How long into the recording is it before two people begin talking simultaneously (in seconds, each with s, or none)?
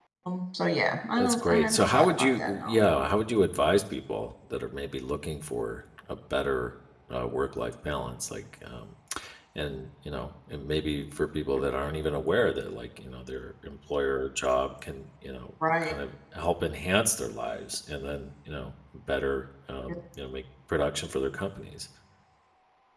1.2 s